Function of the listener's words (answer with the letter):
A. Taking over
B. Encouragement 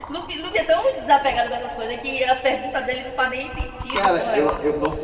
A